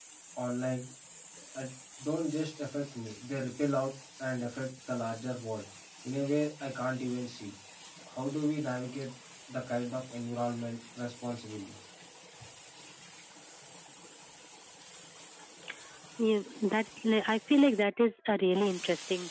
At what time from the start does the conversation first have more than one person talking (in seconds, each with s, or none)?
none